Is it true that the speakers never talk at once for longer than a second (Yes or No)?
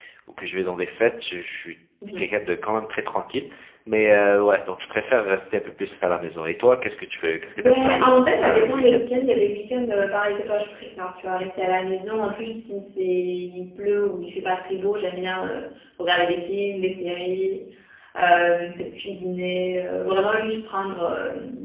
No